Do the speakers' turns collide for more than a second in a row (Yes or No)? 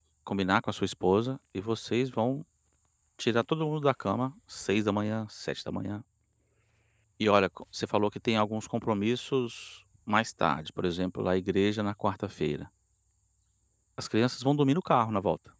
No